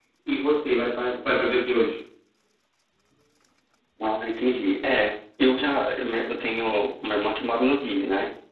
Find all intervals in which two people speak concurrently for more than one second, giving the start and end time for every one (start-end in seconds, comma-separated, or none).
none